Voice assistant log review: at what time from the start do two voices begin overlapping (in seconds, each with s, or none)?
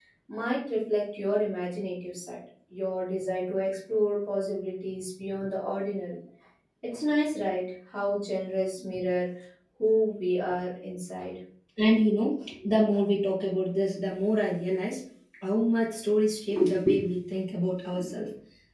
none